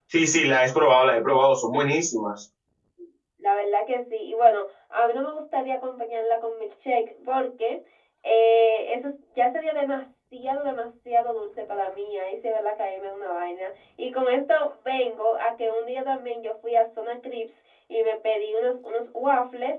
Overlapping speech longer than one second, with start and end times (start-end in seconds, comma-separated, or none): none